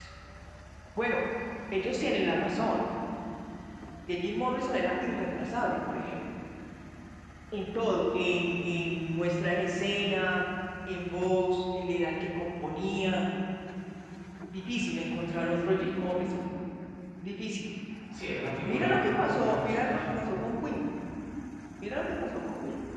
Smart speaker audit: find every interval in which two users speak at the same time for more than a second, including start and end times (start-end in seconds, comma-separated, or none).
18.6-20.0